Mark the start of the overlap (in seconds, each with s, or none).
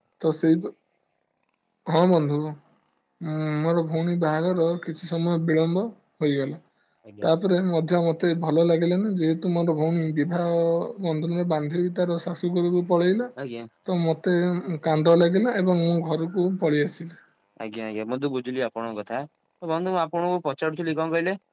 none